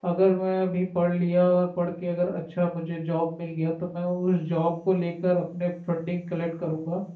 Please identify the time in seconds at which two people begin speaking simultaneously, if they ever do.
none

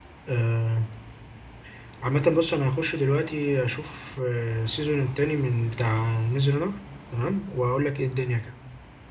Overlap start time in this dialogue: none

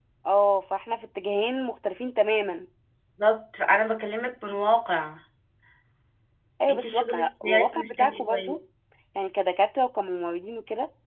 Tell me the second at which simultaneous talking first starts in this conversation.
6.7 s

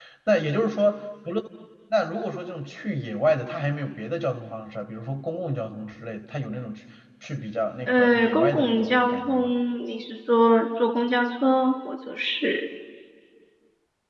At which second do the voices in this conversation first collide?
7.9 s

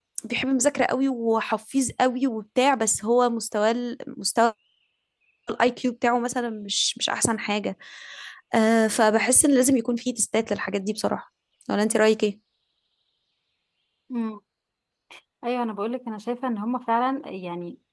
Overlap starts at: none

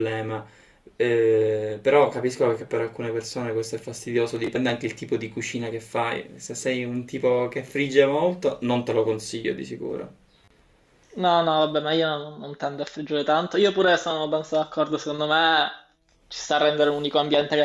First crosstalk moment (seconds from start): none

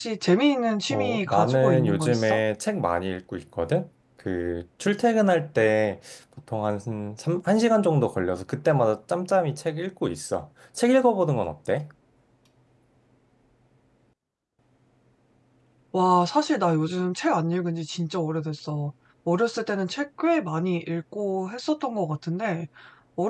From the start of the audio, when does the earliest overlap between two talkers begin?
0.9 s

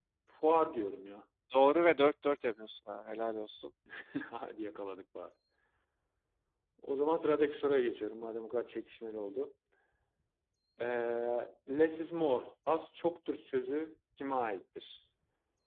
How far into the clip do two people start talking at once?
none

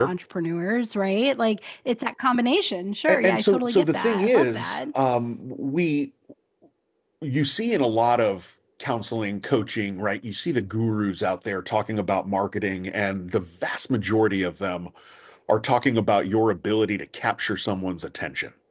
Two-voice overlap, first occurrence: 3.1 s

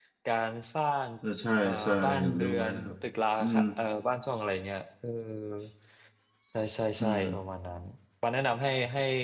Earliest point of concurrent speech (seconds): 1.6 s

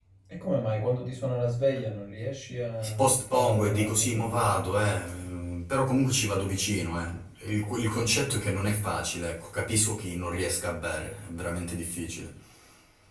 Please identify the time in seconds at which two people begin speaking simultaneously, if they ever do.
2.8 s

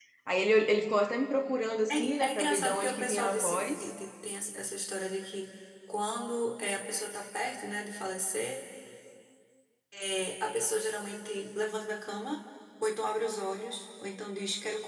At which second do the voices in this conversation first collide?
1.9 s

